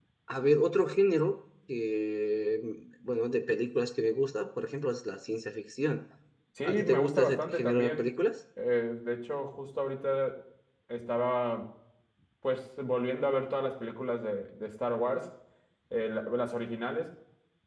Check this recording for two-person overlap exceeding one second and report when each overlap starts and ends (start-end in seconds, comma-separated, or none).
6.6-8.1